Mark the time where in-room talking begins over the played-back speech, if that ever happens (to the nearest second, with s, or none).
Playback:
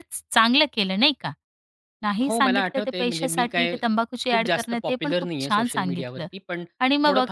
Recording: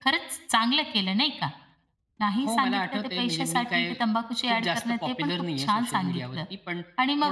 none